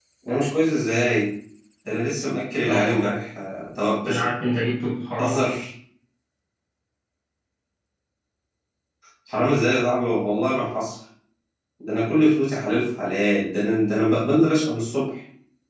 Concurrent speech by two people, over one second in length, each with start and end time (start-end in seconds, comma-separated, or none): none